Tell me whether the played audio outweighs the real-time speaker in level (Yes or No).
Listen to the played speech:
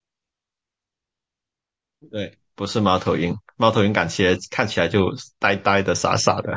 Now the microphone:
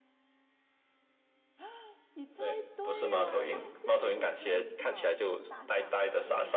Yes